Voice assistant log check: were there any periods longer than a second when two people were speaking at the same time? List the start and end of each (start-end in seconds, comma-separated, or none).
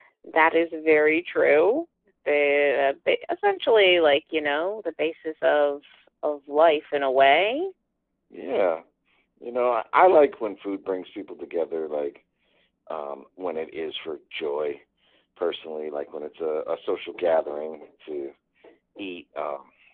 none